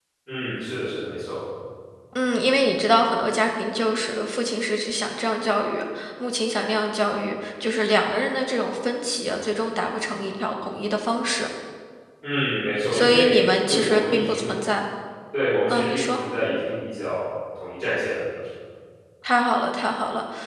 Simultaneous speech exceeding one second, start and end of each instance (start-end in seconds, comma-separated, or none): 12.9-14.5